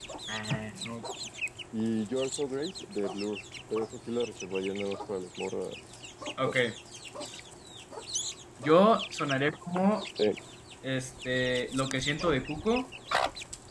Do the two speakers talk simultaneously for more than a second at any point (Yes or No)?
No